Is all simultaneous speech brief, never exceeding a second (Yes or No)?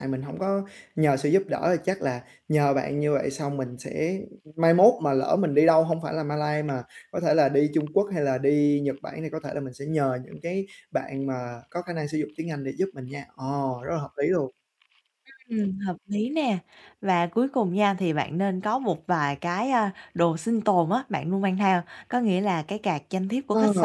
Yes